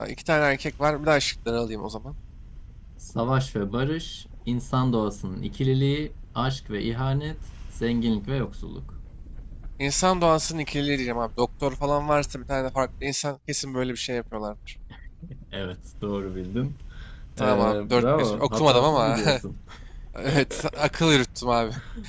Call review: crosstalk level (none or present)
present